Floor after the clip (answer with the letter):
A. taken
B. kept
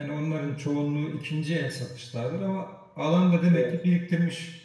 B